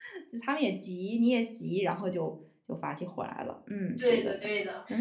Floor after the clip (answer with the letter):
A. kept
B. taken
B